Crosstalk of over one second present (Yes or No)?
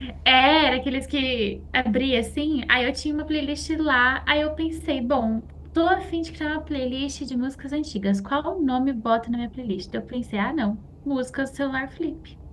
No